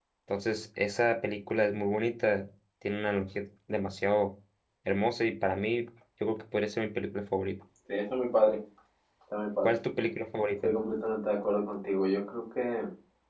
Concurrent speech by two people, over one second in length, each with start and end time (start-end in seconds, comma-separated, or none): none